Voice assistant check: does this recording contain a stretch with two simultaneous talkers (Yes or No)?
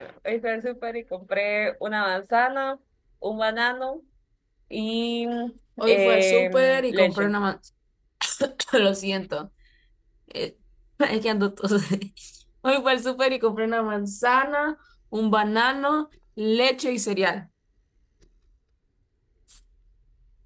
Yes